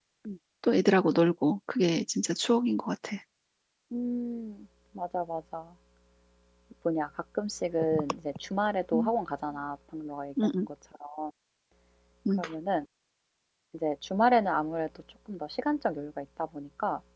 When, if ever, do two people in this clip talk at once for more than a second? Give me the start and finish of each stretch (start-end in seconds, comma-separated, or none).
none